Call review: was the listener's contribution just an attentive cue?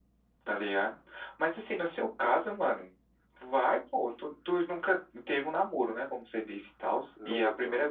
Yes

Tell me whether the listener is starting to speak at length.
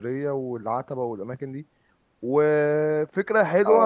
No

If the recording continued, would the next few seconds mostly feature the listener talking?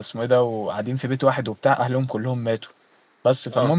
No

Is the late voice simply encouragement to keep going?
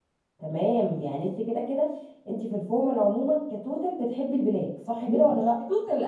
No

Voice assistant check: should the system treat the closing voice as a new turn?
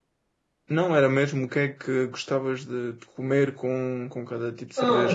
Yes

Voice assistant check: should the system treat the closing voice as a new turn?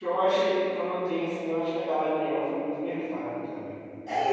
Yes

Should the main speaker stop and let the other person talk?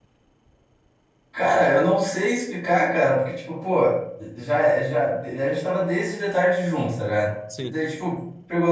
No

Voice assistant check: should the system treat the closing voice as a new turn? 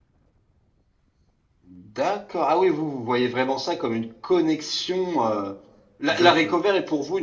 No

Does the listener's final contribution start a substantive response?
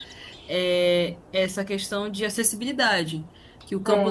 No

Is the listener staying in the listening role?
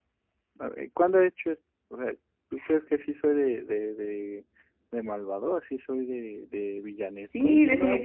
No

